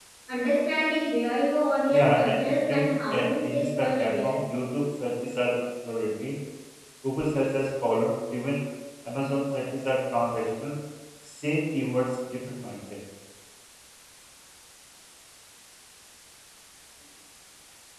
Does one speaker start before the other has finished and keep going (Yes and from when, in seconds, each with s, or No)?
Yes, from 1.9 s